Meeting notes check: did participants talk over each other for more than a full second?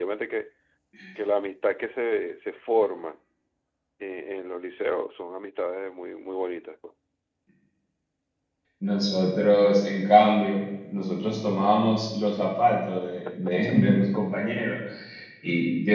No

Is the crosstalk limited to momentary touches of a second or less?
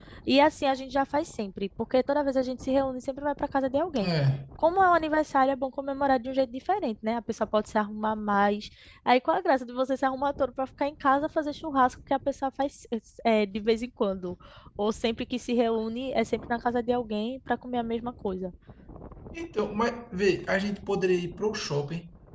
Yes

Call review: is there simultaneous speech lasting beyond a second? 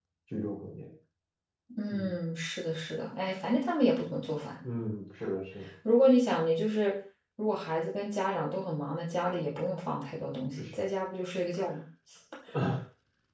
No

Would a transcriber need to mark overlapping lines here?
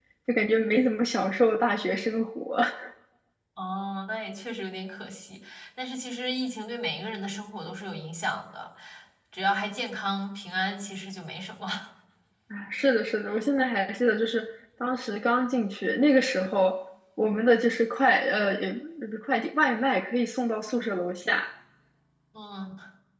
No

